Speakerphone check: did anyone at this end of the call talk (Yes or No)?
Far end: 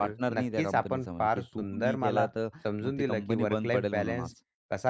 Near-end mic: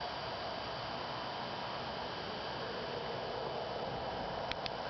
No